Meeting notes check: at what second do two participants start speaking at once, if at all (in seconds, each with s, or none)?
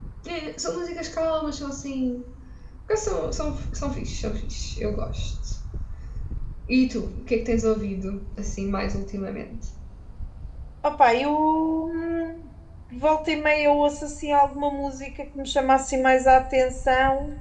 none